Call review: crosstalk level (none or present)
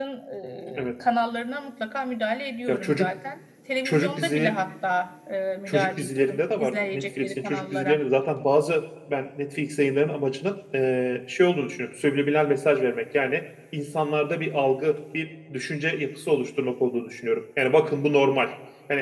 present